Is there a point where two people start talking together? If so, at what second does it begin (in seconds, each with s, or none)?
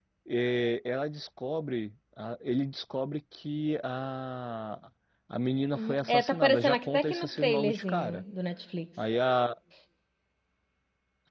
5.7 s